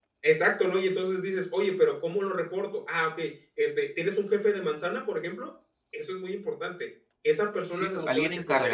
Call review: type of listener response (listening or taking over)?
taking over